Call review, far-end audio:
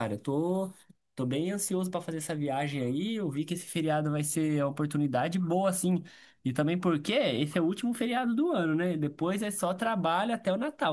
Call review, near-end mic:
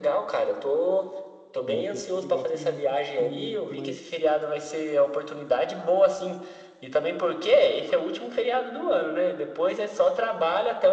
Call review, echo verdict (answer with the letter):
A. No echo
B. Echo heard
B